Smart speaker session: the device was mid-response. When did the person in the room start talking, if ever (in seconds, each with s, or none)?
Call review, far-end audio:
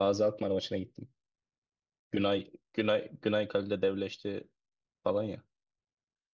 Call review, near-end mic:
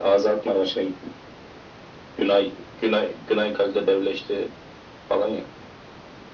none